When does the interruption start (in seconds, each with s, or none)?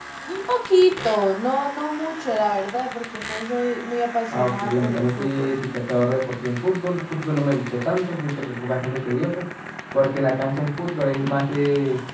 4.3 s